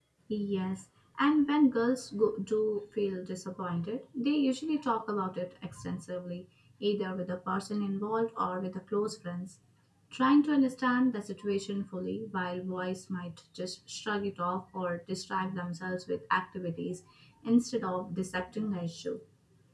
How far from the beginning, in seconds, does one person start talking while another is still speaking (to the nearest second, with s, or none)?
none